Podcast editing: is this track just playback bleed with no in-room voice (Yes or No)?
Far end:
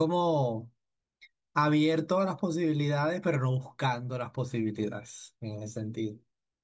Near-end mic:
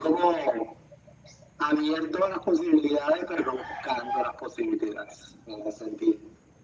Yes